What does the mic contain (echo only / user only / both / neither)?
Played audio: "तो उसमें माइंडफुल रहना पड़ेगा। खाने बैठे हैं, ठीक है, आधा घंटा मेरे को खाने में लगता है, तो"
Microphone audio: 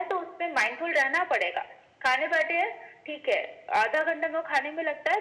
echo only